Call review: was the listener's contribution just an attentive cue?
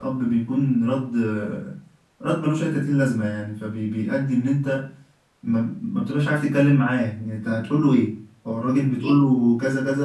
Yes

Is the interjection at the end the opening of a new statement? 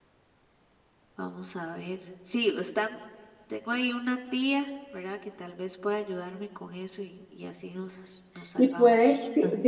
Yes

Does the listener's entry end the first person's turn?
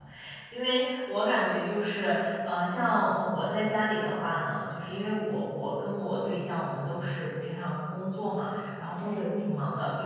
No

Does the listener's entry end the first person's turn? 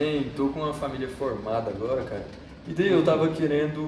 No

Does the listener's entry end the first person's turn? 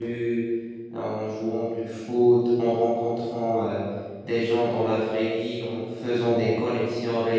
No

